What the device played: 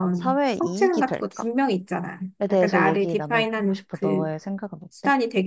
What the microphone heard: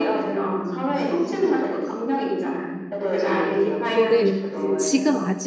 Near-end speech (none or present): present